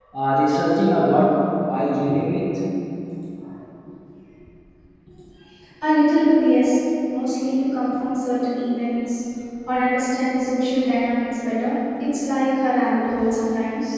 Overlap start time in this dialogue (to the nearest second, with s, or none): none